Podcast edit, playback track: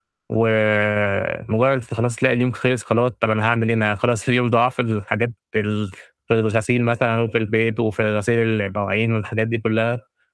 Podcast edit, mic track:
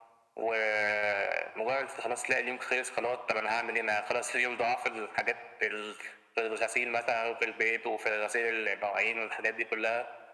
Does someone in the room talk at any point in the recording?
No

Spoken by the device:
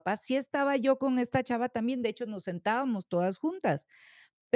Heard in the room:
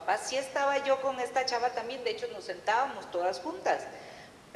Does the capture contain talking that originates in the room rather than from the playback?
No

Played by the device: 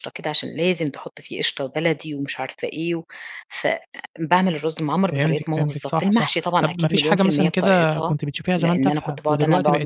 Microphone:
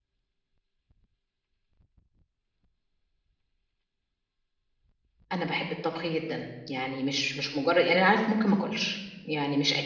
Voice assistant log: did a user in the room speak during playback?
Yes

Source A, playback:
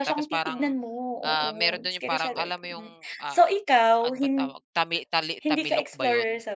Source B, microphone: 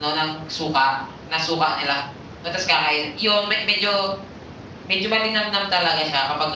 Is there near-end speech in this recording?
Yes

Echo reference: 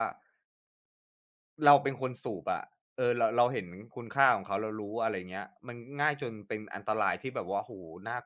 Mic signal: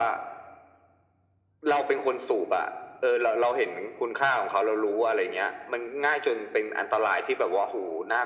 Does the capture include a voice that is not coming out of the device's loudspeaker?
No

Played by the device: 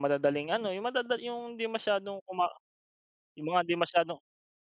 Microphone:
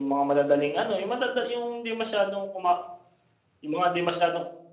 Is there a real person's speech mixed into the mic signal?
No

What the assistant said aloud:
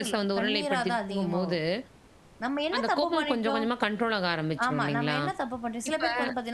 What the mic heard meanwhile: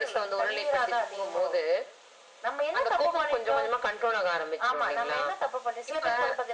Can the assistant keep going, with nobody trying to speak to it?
Yes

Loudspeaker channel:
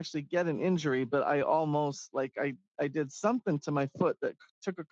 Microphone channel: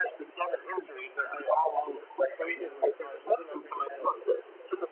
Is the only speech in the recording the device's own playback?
No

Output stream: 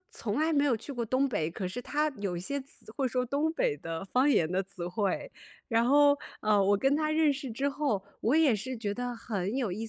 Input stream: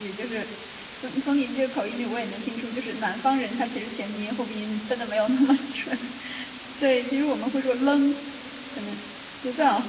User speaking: Yes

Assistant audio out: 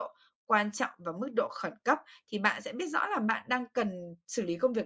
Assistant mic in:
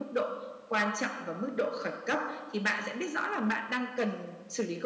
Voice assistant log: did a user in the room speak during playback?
No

